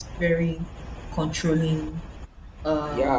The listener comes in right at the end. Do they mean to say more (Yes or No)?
Yes